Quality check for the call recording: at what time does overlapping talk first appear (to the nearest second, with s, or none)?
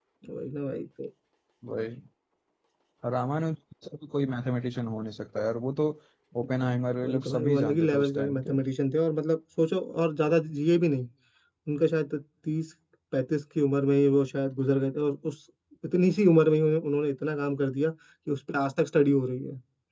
7 s